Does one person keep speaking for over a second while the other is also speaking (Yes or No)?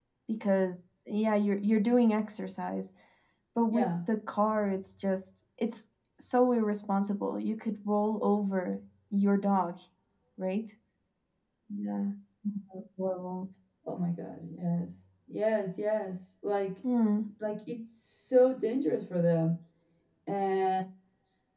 No